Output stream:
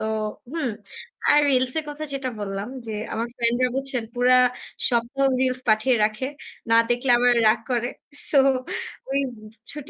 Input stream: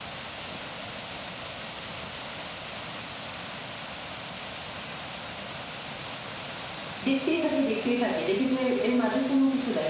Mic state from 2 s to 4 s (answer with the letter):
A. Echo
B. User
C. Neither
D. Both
C